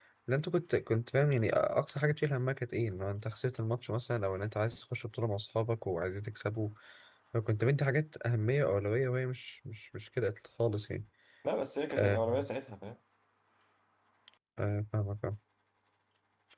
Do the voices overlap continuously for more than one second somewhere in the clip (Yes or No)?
No